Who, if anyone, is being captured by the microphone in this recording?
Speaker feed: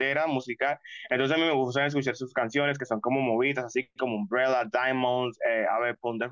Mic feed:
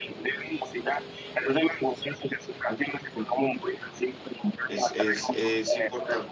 both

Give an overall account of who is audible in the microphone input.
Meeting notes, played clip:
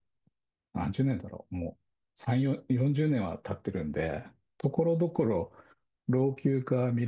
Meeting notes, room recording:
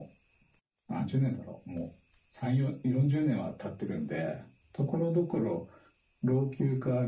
echo only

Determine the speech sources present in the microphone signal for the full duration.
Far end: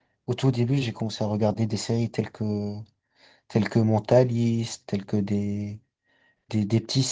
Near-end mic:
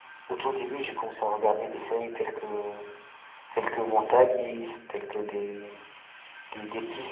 echo only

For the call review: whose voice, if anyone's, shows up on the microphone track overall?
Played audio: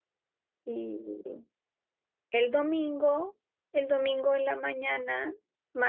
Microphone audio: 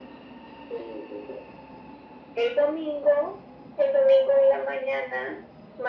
echo only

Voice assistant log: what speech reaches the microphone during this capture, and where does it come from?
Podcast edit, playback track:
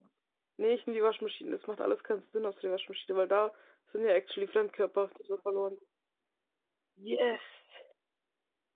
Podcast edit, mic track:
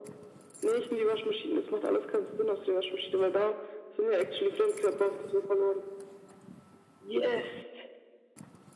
echo only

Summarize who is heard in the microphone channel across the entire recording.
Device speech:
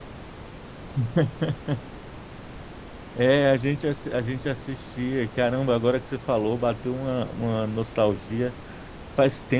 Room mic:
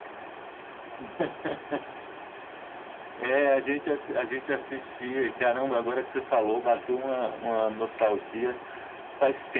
echo only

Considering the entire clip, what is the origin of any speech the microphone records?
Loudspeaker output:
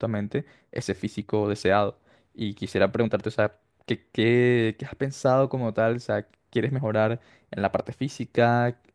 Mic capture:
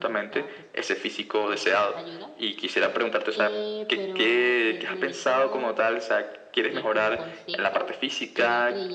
both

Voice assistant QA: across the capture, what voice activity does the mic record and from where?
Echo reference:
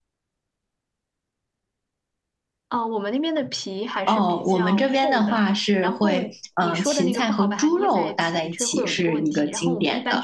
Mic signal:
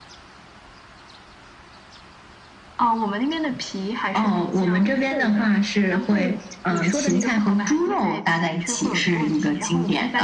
echo only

